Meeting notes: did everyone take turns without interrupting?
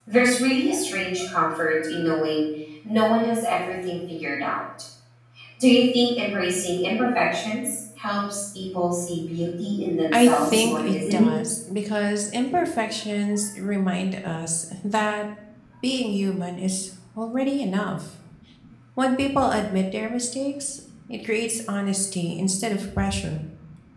No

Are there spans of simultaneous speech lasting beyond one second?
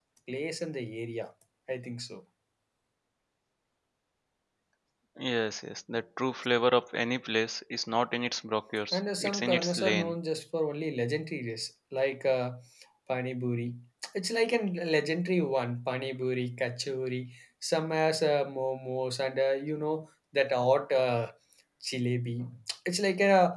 Yes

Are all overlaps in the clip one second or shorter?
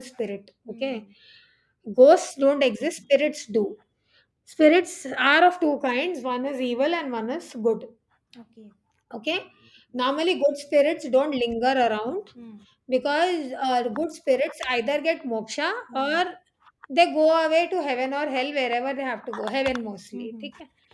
Yes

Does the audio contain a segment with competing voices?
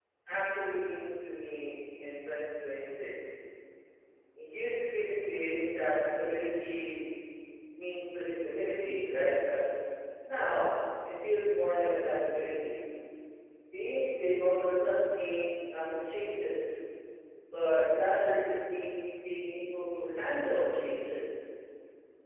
No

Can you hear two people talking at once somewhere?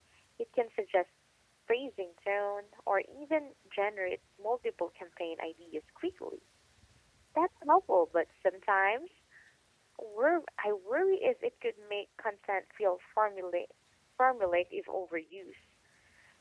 No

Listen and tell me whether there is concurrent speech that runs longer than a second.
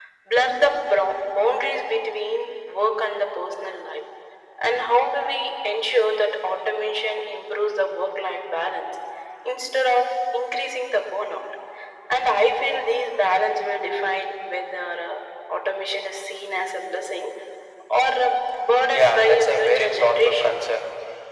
Yes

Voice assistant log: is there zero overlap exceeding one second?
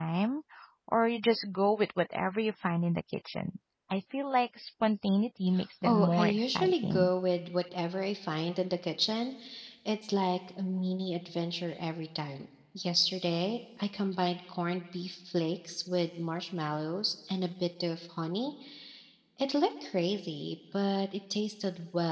No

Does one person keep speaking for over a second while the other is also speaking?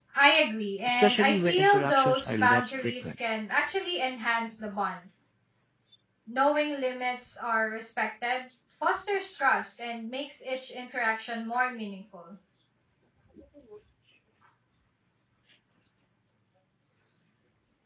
Yes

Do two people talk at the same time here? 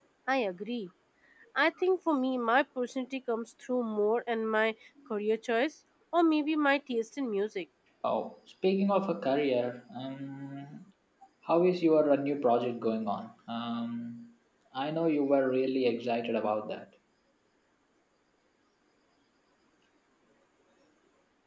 No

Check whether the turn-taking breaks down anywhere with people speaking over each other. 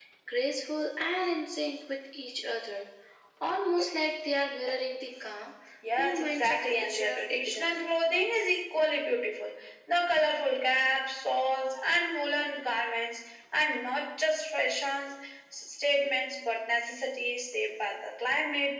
Yes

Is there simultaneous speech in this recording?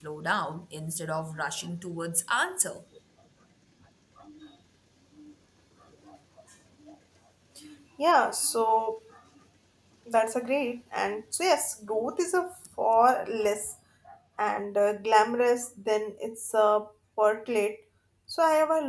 No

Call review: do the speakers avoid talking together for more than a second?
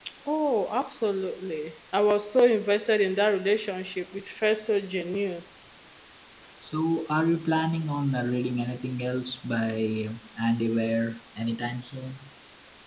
Yes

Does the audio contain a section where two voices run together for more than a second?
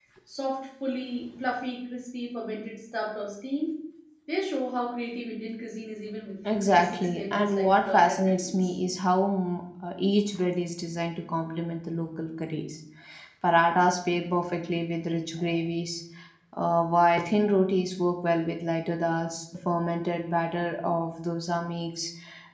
Yes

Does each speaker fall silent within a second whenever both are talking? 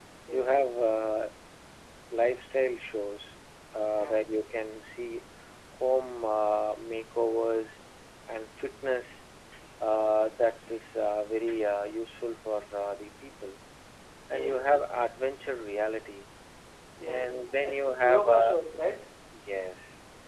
No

